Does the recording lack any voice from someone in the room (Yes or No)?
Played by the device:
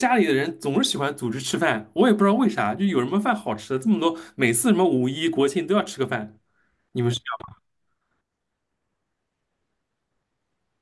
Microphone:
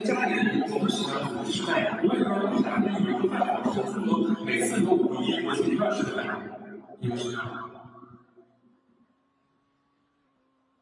Yes